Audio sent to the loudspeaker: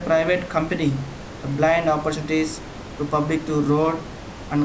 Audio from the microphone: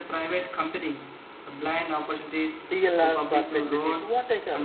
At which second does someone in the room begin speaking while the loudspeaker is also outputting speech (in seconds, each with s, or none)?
2.7 s